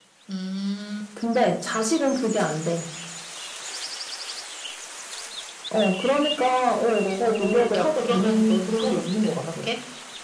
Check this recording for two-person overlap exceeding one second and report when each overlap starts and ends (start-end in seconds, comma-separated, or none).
7.0-9.5